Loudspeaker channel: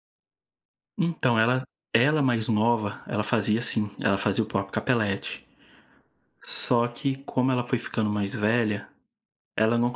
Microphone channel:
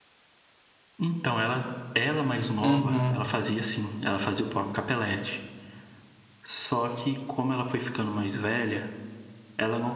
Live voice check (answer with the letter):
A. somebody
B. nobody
A